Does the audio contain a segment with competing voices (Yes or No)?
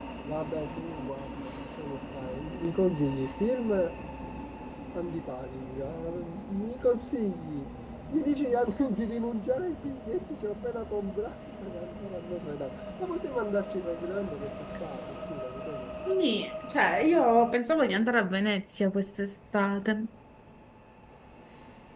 No